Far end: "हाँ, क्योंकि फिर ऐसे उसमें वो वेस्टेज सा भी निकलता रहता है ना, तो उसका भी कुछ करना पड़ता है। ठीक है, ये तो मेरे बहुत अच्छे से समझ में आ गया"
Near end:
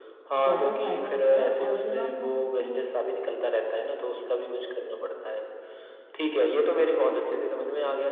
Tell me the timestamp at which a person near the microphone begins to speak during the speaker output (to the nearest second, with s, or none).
0 s